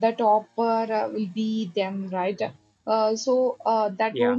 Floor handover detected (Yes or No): No